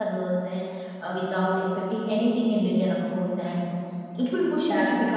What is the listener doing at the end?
listening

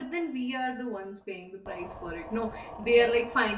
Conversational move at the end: listening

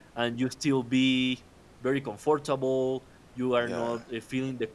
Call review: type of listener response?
listening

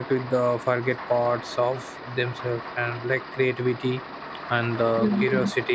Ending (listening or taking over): listening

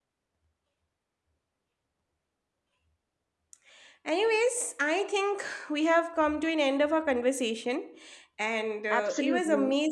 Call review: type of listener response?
listening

